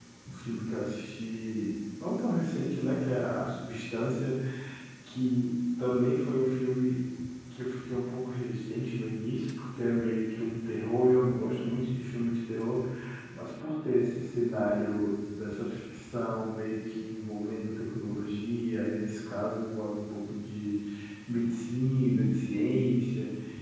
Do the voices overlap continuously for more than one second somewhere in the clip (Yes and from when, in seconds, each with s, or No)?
No